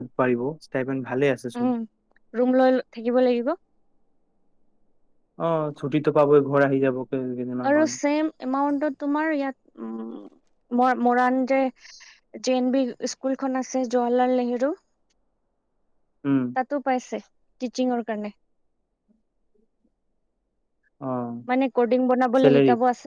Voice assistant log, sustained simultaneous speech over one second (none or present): none